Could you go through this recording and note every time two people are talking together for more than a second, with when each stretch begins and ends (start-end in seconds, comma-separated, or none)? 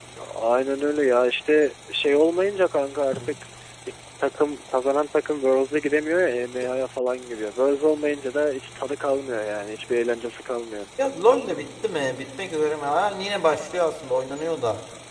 none